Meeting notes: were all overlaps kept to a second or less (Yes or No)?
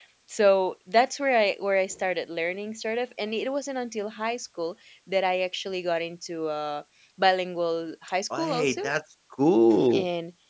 Yes